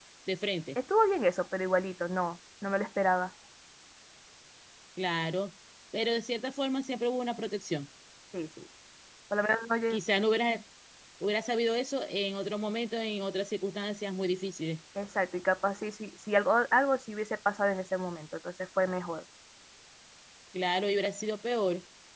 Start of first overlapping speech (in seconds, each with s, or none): none